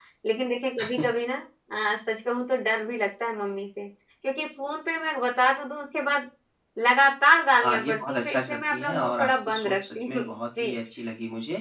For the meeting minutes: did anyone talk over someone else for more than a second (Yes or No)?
Yes